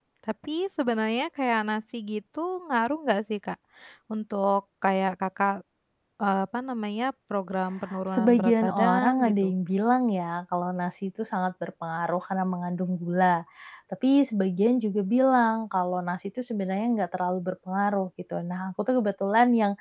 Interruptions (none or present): present